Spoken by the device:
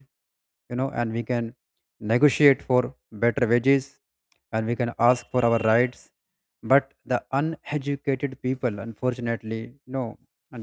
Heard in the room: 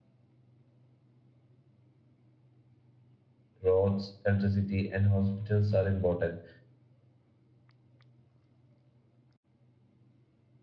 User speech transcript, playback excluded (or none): roads, electricity, and hospitals are important,